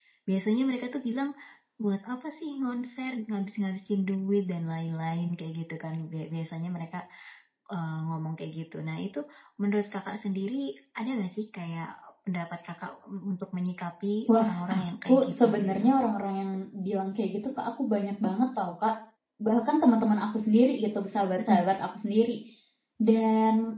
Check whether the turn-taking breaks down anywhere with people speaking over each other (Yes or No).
Yes